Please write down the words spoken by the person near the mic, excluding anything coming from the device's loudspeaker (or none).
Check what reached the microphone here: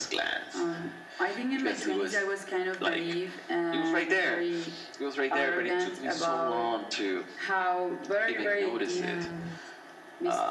and